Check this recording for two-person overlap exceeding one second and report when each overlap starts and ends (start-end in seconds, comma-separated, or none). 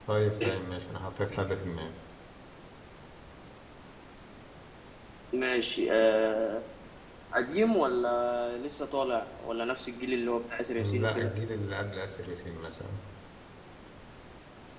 none